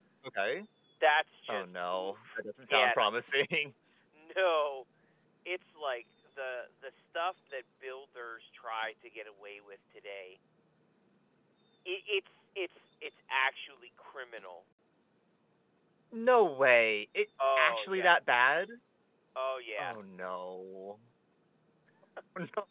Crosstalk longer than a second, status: present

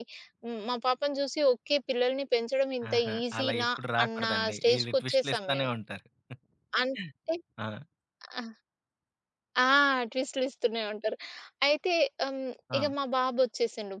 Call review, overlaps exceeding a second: present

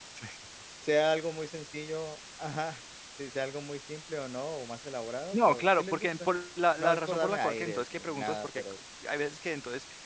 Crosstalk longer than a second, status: present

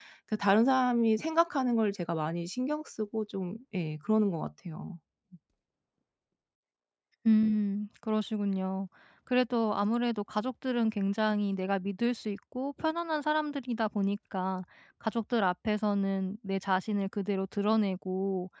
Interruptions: none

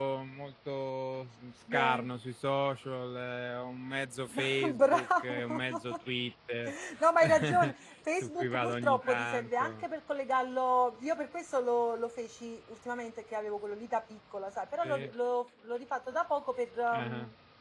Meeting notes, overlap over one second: present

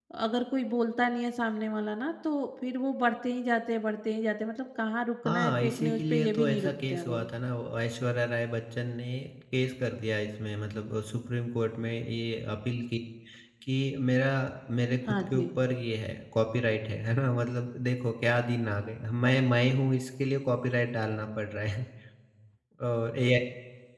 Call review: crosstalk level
present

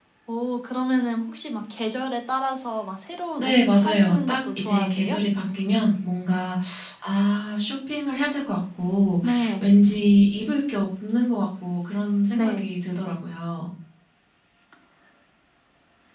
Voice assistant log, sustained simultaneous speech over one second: present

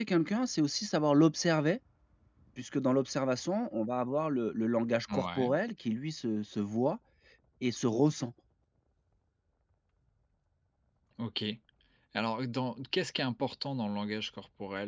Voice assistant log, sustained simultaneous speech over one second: none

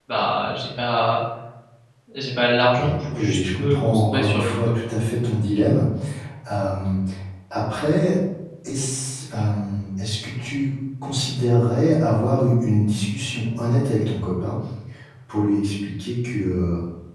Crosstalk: present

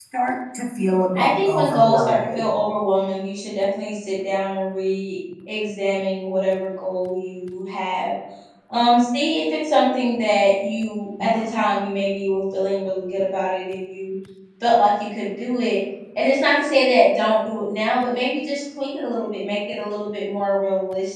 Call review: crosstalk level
present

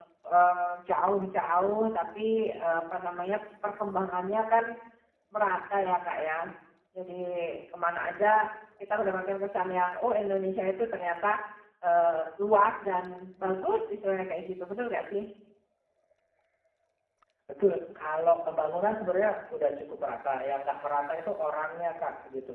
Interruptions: none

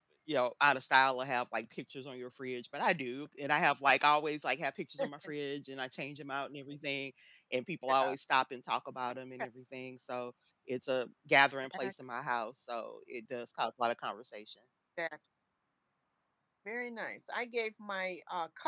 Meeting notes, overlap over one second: none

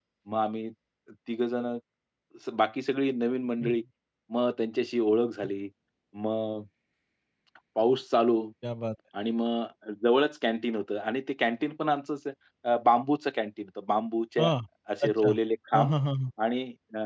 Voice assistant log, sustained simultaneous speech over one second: none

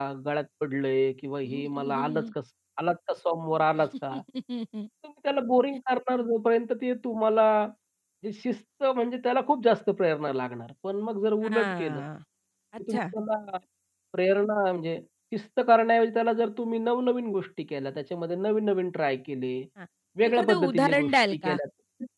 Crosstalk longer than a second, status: present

